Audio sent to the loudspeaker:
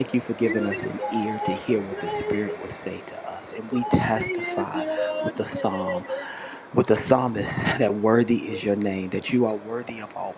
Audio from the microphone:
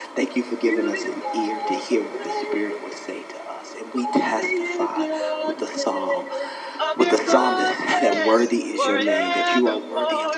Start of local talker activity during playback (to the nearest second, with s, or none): 7 s